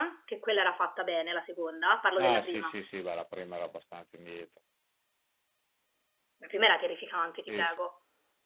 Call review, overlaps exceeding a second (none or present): none